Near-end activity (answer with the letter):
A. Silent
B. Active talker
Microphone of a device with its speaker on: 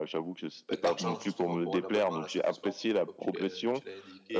B